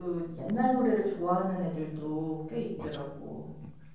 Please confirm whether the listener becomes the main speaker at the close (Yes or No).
Yes